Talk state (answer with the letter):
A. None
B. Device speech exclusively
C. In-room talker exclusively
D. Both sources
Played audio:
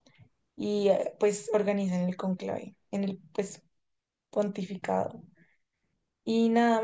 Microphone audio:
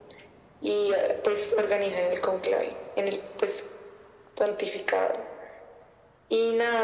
B